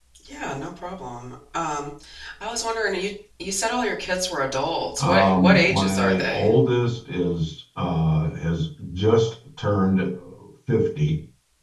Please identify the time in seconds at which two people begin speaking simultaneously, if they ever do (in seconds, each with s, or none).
5.0 s